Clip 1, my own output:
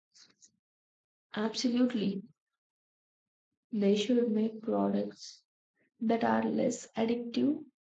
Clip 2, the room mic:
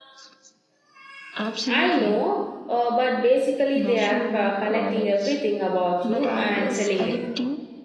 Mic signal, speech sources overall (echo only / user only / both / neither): both